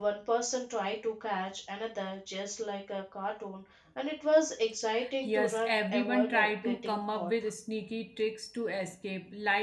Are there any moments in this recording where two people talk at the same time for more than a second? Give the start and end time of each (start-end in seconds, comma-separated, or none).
5.2-7.3